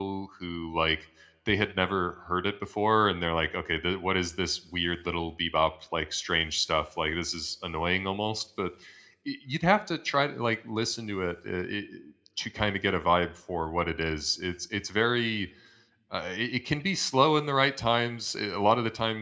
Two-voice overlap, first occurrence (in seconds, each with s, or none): none